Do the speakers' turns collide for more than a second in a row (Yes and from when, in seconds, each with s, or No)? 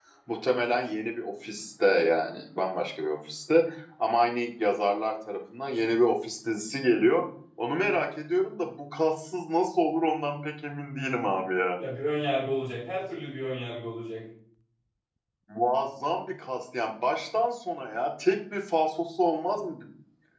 No